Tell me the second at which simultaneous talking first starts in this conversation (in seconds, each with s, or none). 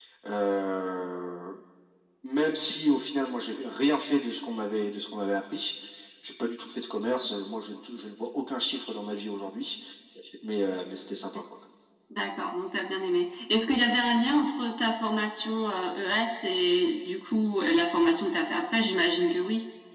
none